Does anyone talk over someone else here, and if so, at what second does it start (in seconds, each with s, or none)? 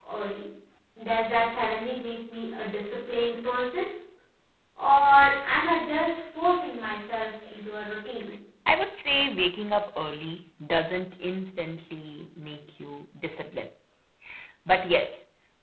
none